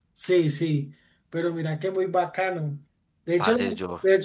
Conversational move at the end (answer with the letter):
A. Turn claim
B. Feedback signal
B